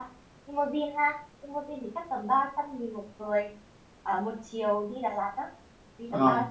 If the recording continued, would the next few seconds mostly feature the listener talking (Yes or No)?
Yes